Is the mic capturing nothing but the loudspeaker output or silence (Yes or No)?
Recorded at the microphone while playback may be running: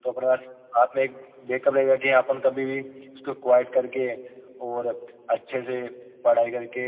Yes